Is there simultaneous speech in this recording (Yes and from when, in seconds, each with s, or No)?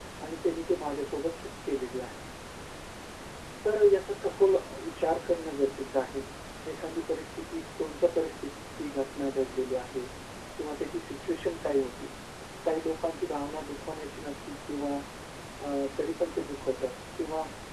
No